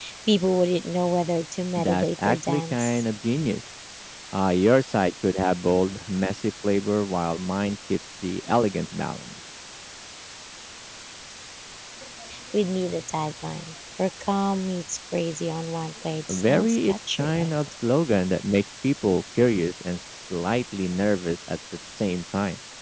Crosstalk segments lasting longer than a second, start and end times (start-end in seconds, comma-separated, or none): 1.8-3.0, 16.3-17.5